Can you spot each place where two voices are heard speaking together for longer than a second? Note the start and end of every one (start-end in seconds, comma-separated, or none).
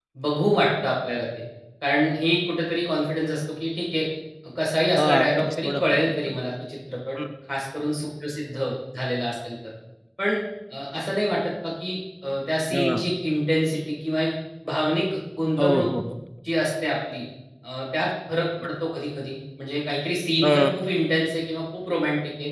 5.0-6.4